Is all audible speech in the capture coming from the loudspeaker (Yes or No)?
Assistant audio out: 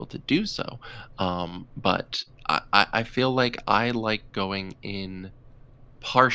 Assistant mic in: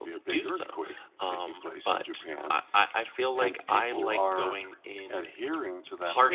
No